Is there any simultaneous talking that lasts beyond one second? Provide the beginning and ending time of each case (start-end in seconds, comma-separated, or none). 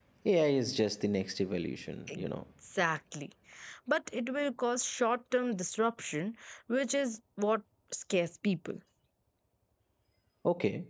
none